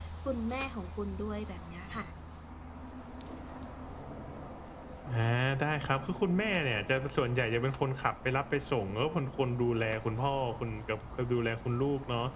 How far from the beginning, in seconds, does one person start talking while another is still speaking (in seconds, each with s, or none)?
none